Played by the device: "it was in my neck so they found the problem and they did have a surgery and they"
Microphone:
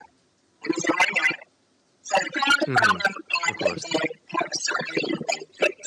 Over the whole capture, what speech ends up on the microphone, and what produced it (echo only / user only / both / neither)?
both